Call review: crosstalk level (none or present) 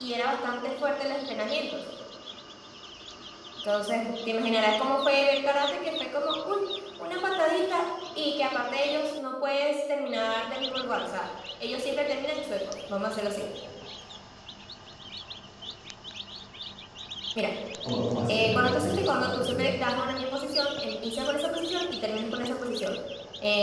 present